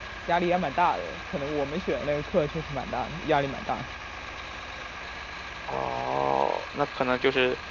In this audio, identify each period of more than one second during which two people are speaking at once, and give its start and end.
none

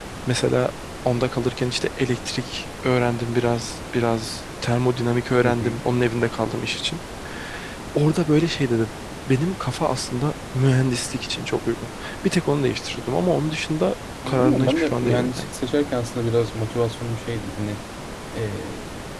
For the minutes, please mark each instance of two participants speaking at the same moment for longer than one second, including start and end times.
14.3-15.5

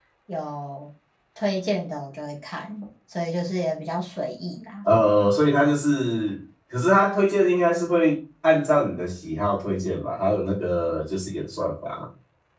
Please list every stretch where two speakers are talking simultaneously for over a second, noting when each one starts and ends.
none

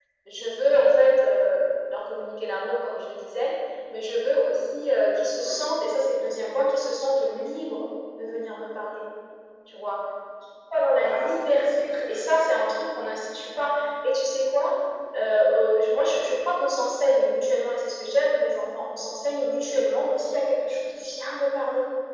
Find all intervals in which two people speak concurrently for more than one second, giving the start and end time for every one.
11.0-12.2

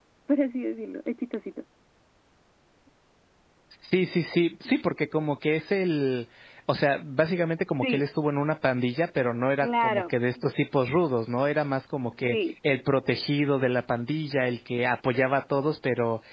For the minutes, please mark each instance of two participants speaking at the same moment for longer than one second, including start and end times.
none

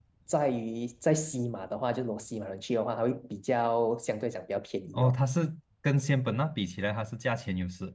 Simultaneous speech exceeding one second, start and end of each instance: none

